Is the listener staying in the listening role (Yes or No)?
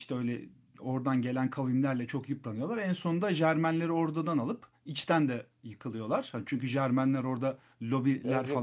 No